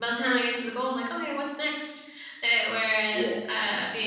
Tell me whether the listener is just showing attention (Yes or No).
Yes